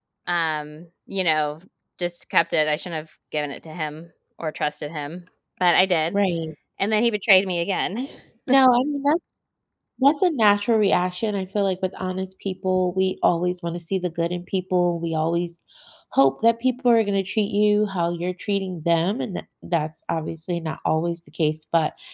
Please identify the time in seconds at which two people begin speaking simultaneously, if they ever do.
none

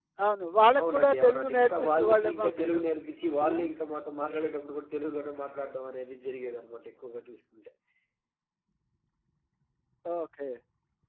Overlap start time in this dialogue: 0.8 s

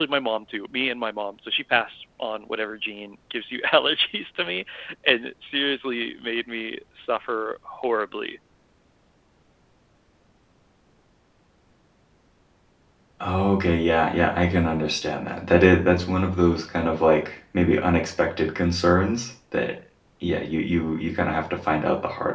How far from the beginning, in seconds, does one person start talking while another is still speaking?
none

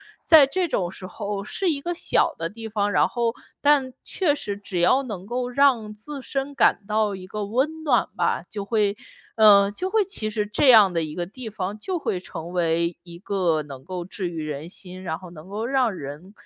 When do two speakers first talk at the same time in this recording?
none

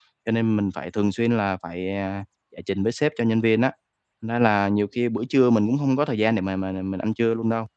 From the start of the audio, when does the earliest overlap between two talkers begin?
none

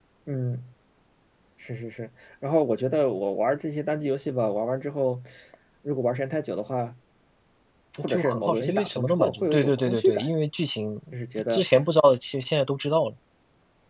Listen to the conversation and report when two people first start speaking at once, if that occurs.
8.0 s

